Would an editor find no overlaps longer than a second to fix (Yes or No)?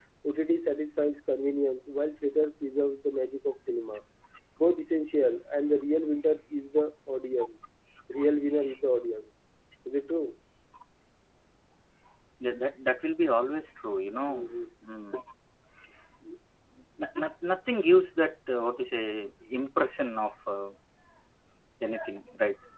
Yes